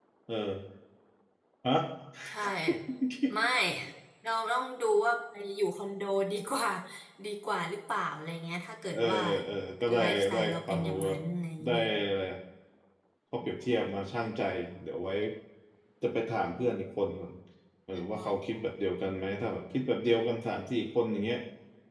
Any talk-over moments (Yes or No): Yes